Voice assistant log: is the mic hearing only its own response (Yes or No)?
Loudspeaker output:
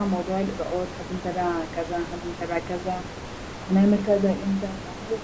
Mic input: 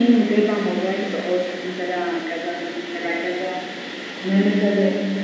Yes